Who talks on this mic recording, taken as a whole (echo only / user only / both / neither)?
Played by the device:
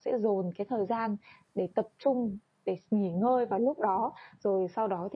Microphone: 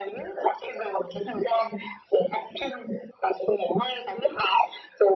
echo only